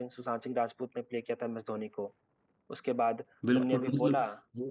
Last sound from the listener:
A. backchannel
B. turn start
B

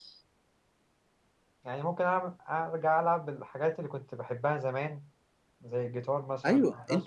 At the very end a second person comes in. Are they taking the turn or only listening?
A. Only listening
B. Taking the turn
B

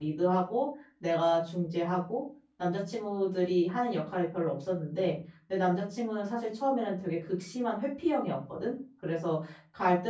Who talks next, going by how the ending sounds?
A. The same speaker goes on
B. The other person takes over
A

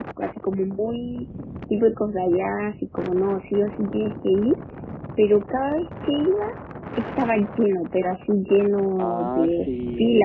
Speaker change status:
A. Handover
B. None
A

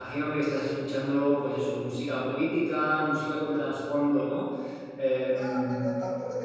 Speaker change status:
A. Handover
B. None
A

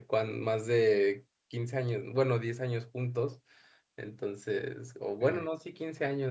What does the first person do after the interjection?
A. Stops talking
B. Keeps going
B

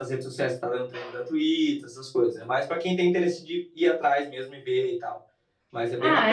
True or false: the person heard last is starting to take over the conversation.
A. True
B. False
A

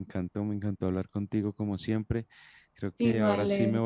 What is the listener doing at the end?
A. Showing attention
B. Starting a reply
A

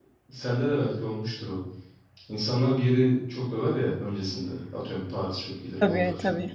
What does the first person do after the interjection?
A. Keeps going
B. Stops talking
A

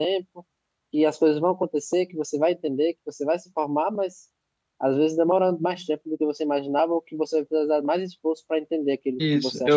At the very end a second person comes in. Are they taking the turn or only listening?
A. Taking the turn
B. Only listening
A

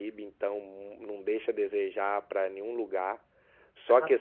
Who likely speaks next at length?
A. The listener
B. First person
B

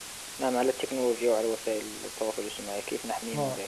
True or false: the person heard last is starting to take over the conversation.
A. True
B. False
A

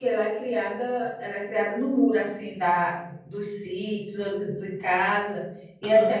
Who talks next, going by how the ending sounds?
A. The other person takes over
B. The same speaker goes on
B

